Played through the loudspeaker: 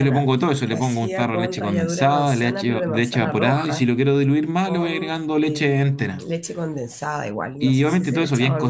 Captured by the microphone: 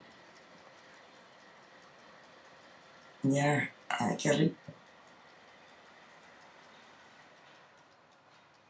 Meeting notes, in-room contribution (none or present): present